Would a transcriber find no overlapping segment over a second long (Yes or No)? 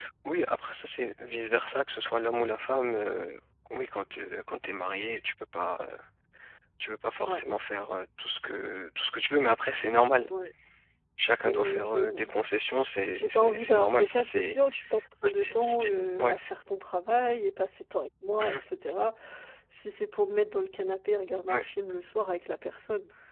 No